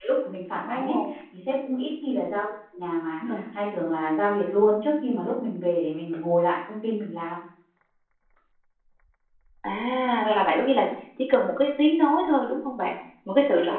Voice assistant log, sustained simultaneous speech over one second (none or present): none